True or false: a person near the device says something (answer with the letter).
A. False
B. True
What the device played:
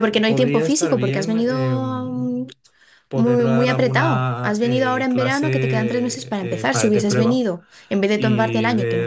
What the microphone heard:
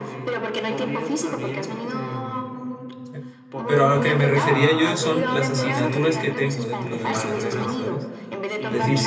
B